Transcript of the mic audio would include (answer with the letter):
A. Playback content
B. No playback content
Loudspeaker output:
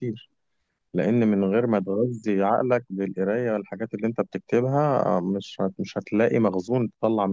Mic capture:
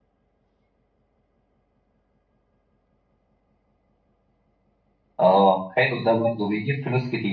B